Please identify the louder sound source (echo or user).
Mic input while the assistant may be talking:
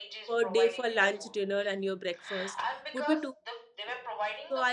user